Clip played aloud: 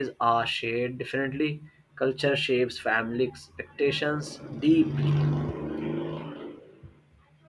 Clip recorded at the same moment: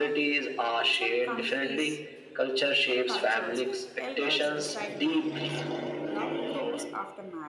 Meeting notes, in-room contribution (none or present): present